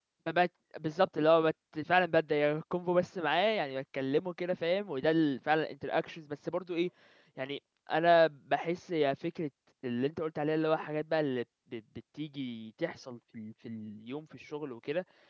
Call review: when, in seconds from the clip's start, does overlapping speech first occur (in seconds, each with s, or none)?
none